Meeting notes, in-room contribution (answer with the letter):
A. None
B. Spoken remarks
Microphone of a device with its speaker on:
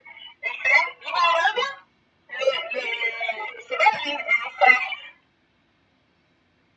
A